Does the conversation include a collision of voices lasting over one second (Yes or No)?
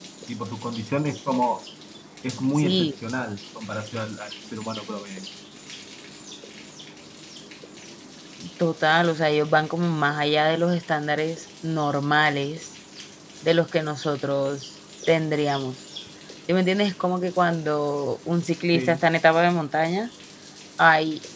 No